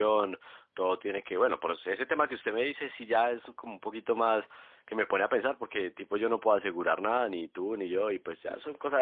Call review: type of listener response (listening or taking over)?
listening